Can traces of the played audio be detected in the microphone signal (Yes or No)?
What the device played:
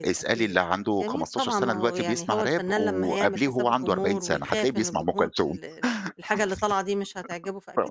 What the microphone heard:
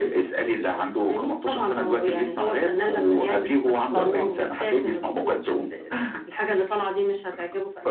Yes